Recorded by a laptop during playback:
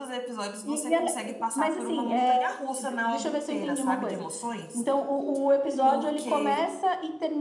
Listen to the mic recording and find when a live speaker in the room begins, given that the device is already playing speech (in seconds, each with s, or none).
none